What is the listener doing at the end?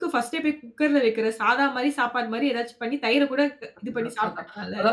taking over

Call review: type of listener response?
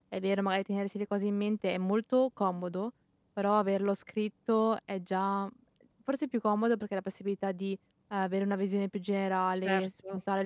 listening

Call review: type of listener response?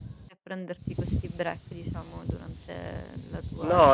taking over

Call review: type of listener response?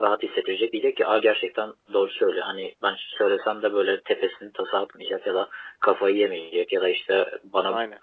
listening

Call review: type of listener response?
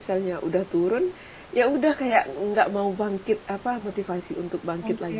listening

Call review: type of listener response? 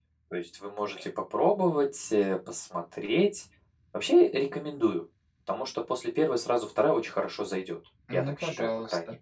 taking over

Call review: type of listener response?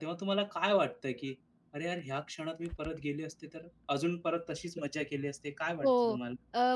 taking over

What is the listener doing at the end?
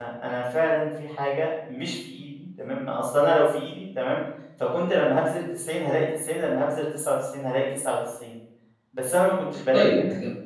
taking over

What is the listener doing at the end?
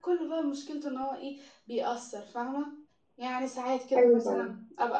listening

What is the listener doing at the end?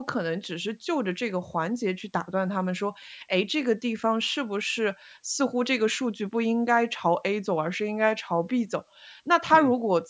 listening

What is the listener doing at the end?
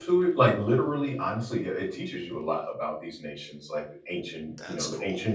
listening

